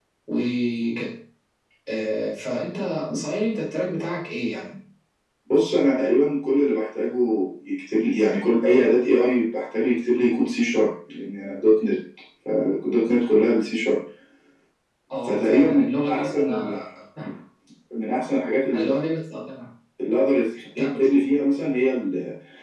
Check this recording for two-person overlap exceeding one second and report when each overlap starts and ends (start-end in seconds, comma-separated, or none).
15.2-16.8